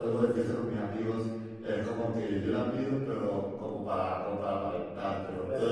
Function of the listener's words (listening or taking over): taking over